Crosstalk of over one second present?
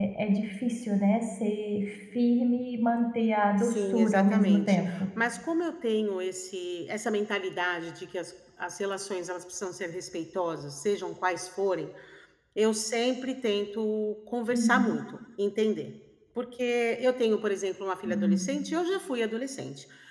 Yes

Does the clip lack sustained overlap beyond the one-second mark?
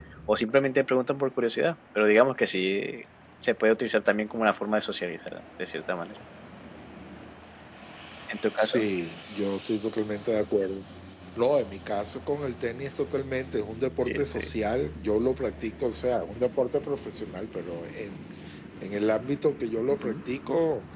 Yes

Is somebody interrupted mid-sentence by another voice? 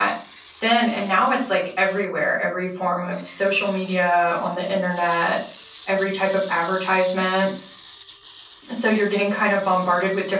No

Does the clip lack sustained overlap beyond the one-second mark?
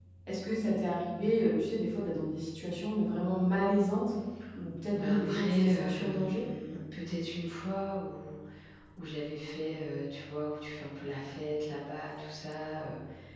No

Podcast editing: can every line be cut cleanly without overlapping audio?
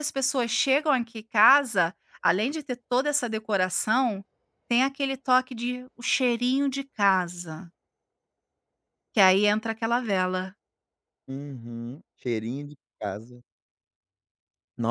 Yes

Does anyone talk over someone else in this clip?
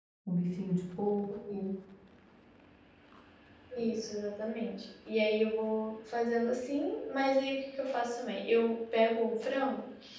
No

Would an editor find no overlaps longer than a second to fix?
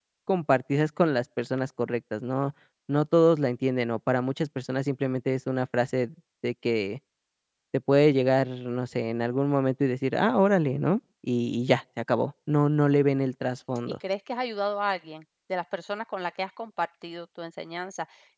Yes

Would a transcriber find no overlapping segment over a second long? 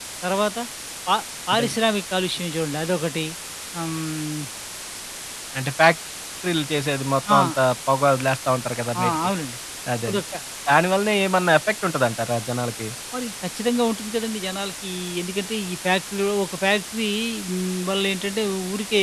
Yes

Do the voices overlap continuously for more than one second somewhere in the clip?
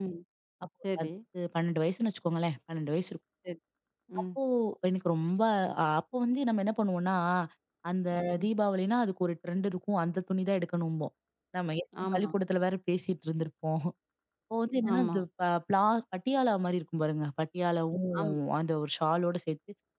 No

